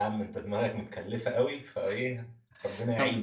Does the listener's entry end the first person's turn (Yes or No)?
Yes